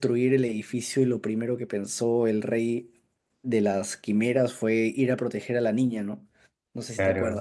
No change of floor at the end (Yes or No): No